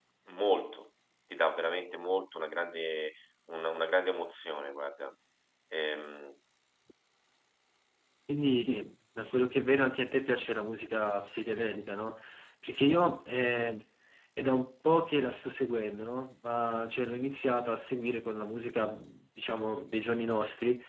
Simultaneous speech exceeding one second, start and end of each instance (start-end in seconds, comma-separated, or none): none